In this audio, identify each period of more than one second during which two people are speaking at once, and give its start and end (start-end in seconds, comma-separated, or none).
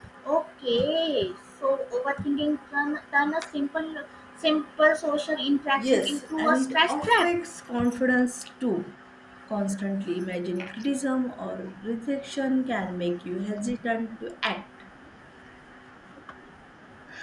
5.8-7.3